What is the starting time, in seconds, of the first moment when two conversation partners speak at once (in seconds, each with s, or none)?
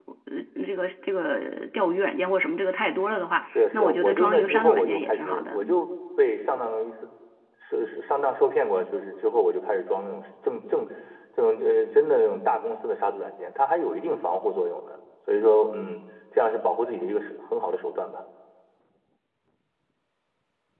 3.5 s